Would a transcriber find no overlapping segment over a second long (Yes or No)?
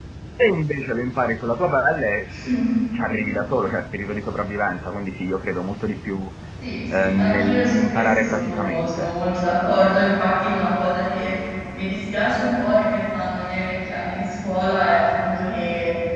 No